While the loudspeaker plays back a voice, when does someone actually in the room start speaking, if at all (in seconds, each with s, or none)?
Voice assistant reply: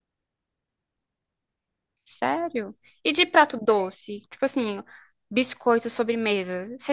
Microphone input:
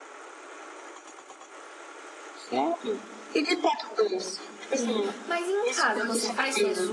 4.7 s